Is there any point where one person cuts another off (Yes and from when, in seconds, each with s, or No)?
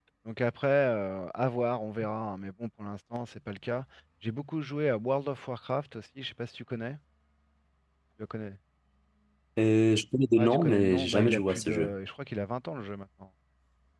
Yes, from 10.4 s